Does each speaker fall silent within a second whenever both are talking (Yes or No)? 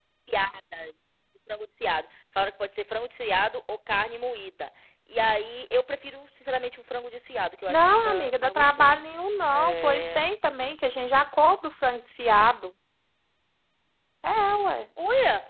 No